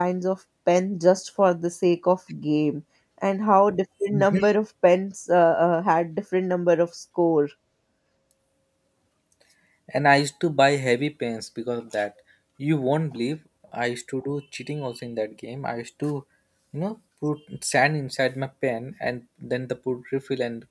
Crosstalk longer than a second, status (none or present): none